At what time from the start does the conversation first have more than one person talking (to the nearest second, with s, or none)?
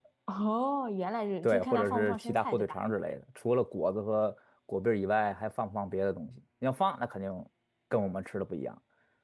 1 s